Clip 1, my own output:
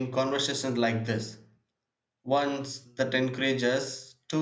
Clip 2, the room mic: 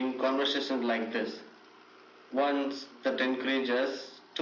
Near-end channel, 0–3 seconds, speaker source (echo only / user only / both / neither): echo only